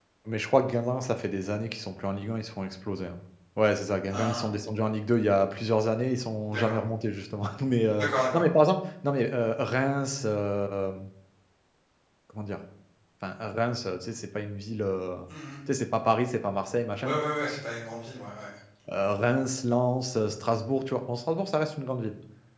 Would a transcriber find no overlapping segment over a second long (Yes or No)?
Yes